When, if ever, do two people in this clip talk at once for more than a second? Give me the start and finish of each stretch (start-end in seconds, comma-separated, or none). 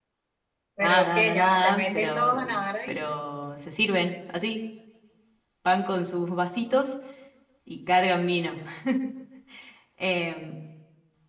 0.8-2.3